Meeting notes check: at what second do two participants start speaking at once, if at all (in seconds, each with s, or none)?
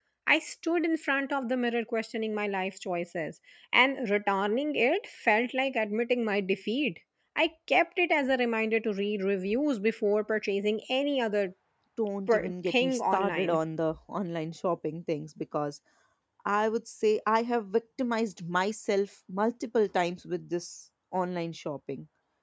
12.3 s